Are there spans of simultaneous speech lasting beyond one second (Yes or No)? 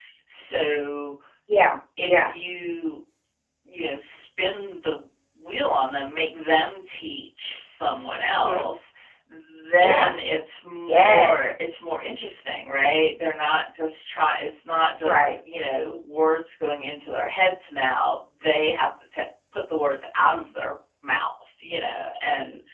No